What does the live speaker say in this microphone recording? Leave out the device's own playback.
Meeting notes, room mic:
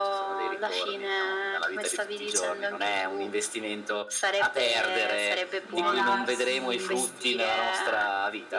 rivelarsi,

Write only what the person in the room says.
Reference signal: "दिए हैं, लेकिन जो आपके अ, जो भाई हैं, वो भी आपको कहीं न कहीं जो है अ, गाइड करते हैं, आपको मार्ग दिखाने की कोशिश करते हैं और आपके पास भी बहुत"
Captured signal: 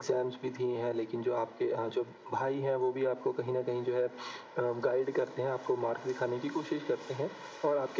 none

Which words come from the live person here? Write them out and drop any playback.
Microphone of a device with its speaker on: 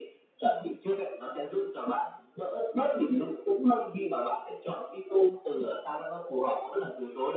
none

